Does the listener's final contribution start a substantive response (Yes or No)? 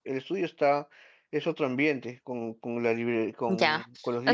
Yes